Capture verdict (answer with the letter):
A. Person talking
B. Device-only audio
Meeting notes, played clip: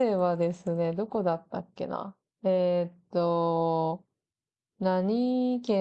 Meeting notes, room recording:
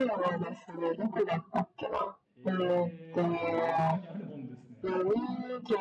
A